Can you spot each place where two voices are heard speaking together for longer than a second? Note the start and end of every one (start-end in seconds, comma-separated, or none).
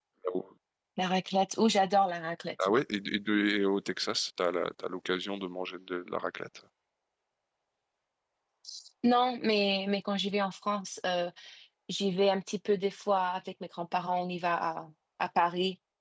none